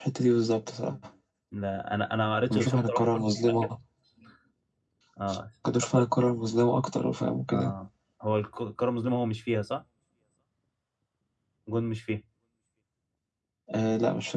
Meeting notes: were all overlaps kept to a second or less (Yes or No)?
No